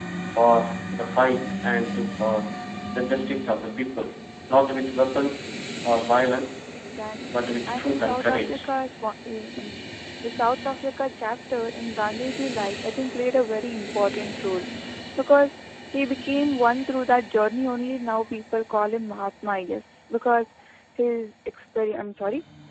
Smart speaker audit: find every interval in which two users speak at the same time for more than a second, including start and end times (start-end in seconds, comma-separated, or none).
7.3-8.7